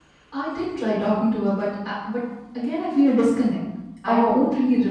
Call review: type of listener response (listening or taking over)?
listening